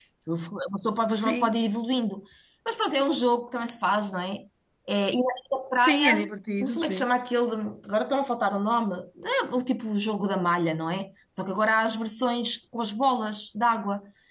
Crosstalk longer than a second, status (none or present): none